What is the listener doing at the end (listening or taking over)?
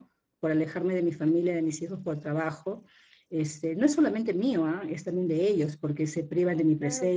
listening